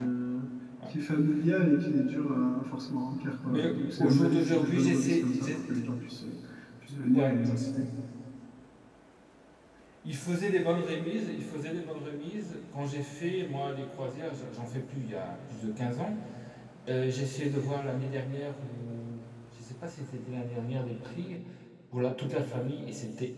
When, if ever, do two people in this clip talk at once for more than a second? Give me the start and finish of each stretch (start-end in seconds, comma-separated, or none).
3.4-5.5